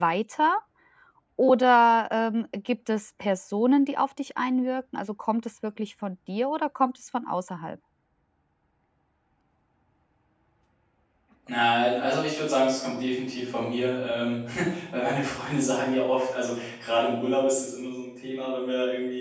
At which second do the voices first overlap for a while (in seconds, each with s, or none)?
none